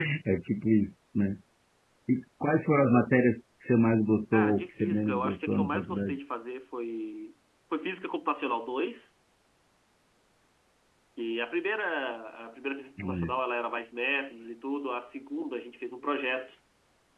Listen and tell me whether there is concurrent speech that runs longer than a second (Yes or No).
Yes